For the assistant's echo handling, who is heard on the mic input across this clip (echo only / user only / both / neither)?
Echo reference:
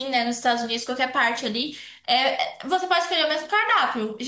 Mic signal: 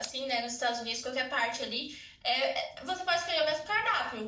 echo only